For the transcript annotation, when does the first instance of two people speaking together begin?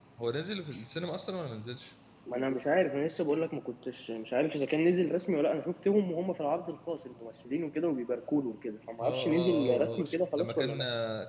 9.0 s

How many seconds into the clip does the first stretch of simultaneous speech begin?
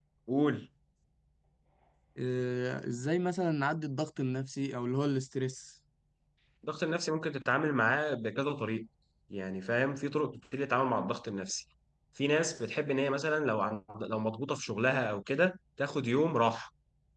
none

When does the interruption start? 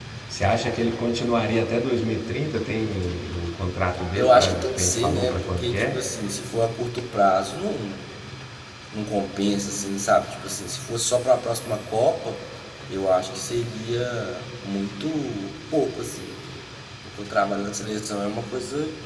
4.2 s

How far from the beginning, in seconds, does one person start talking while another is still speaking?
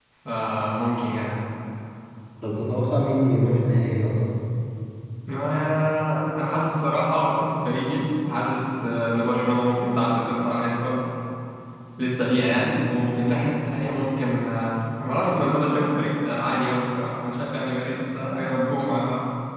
none

